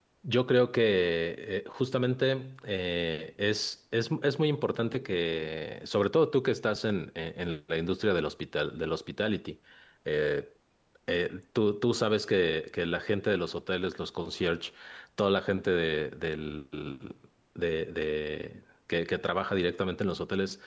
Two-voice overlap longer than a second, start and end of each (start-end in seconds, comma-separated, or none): none